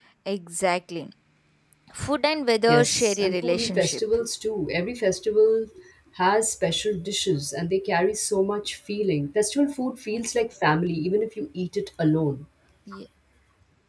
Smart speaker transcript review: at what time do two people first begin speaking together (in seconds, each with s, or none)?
2.7 s